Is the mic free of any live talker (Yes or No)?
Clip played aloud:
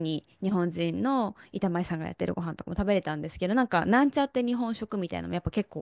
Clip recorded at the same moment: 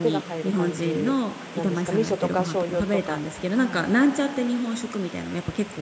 No